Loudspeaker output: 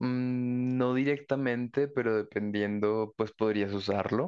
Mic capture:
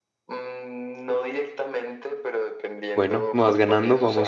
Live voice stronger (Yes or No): Yes